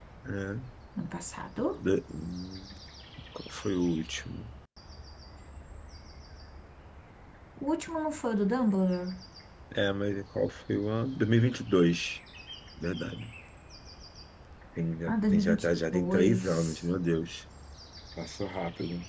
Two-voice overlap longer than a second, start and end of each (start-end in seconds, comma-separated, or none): 15.1-16.8